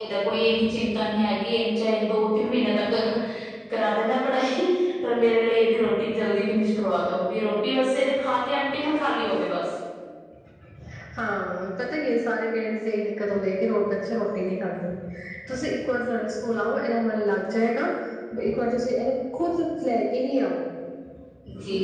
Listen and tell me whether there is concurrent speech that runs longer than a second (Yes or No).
No